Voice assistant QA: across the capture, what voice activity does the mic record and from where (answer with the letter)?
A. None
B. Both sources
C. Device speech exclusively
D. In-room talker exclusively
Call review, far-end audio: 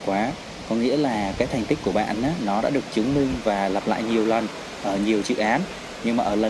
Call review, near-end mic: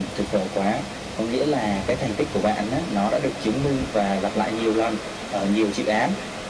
C